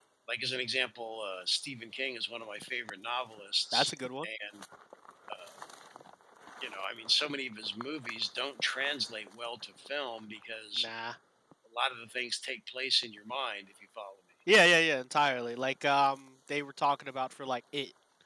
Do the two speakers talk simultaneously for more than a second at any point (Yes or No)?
No